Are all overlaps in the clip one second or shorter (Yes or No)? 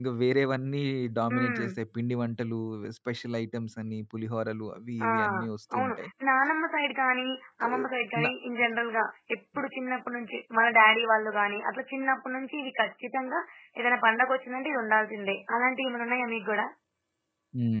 Yes